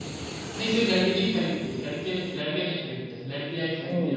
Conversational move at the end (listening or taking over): taking over